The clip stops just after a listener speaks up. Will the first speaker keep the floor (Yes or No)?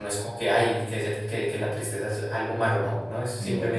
Yes